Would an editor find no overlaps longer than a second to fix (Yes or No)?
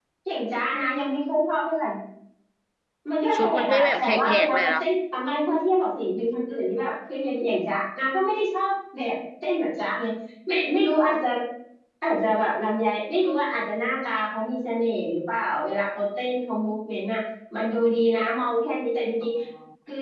No